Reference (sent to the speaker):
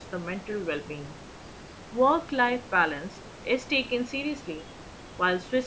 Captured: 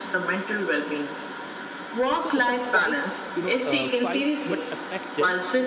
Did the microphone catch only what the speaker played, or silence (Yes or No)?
No